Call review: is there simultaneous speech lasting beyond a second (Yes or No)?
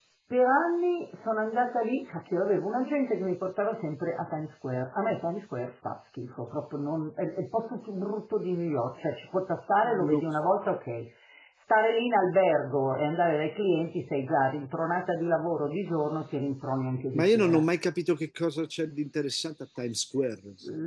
No